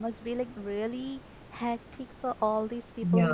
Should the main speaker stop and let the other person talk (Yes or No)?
No